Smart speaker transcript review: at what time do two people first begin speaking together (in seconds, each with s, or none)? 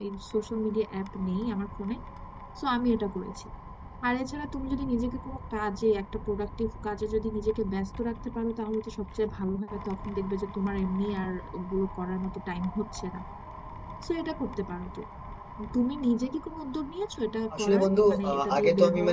17.5 s